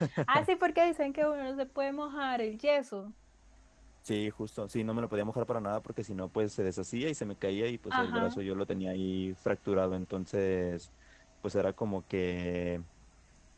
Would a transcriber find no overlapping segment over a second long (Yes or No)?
Yes